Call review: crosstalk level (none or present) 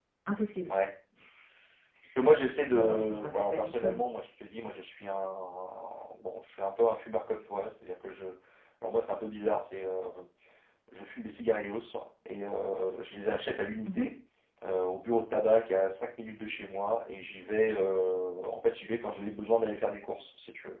present